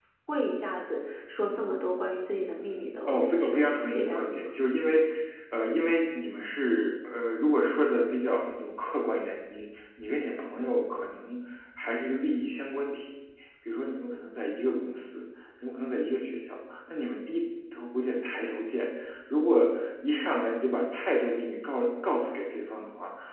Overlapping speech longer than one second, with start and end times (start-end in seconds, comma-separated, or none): 3.1-4.5